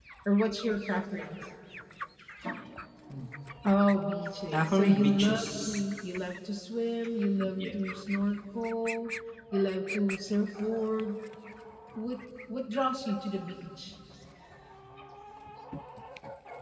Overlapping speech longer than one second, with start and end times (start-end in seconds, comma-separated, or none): 4.5-5.8